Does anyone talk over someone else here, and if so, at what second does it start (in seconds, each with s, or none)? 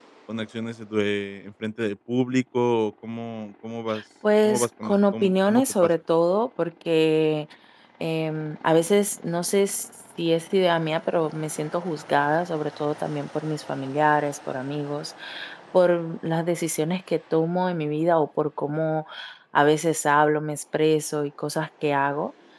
4.4 s